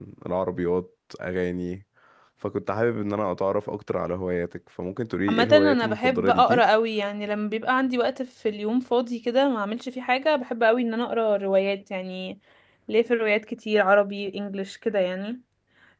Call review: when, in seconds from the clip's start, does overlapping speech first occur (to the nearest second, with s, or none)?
5 s